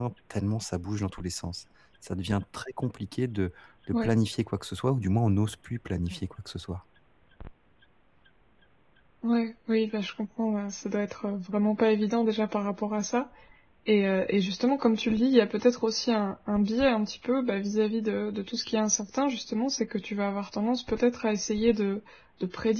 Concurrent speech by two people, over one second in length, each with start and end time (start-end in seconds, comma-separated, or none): none